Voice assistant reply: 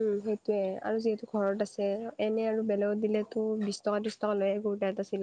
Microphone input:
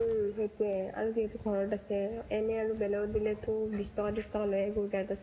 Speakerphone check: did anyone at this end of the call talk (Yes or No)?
No